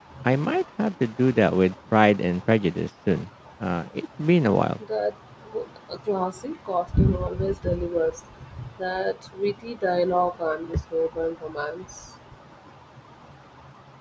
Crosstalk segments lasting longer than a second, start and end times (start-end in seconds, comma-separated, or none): none